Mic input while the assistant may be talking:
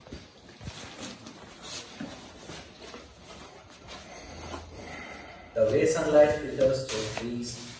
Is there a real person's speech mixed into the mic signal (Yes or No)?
Yes